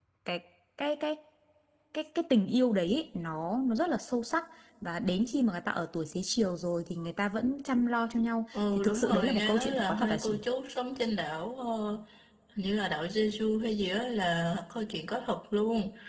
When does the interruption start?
9 s

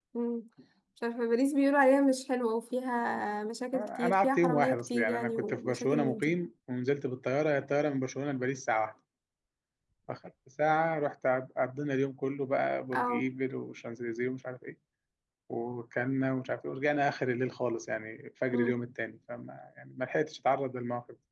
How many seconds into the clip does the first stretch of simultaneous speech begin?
4 s

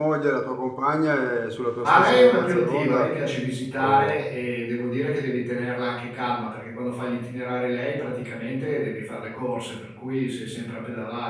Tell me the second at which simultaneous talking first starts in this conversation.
2 s

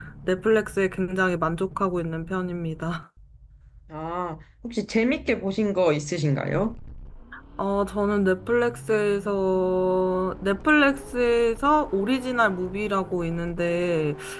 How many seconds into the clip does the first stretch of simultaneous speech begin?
none

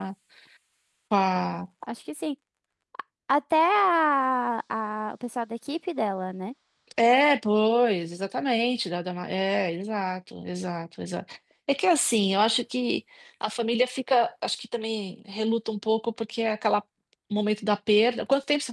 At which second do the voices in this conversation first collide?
none

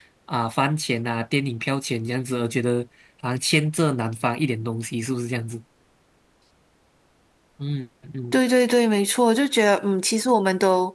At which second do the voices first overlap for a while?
none

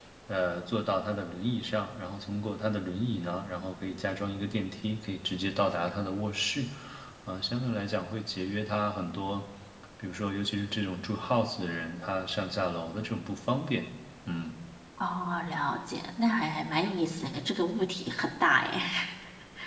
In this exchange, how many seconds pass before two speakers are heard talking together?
none

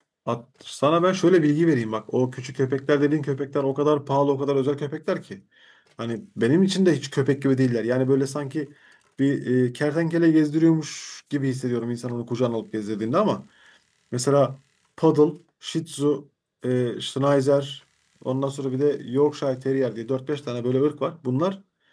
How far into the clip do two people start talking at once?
none

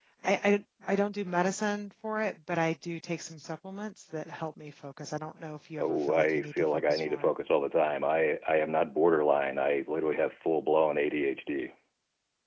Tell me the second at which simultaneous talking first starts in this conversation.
6 s

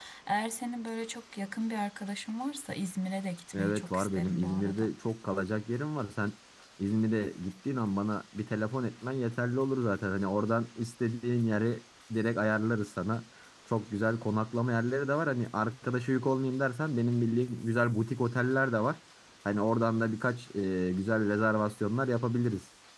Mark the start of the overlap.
4 s

